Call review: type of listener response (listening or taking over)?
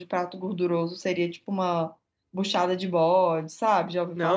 taking over